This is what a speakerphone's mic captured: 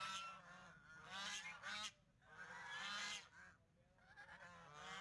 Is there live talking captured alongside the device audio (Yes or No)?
No